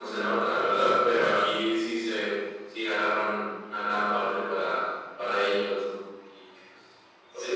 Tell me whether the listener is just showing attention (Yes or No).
No